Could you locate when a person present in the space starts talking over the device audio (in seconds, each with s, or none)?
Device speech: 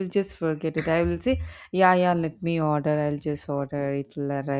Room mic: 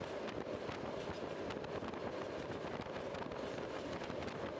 none